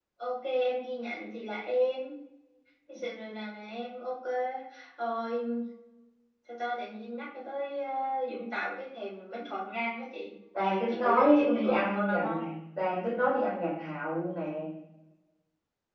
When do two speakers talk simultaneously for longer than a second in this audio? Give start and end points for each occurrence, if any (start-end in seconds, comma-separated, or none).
10.9-12.4